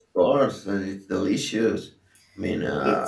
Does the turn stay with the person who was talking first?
Yes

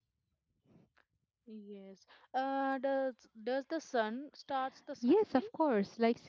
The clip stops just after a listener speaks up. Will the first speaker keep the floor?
No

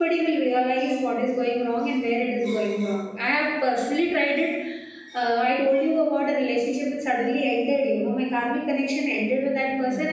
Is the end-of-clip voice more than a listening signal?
No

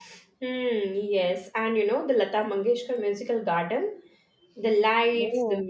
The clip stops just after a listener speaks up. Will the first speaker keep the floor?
Yes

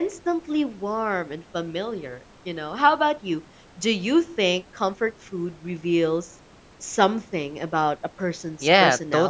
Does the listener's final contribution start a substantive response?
Yes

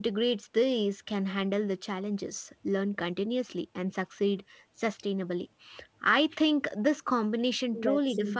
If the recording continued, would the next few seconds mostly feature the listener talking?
No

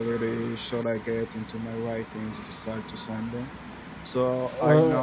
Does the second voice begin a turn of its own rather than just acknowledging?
No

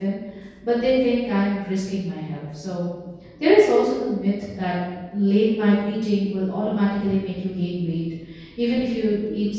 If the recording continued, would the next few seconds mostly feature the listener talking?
No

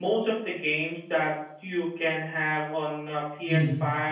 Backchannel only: Yes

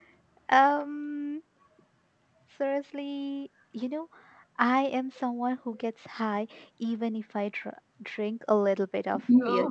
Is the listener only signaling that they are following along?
Yes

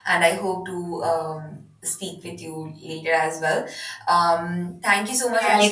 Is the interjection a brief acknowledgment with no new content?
No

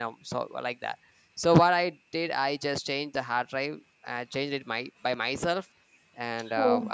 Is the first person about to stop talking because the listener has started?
No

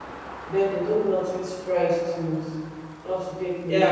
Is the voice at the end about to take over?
Yes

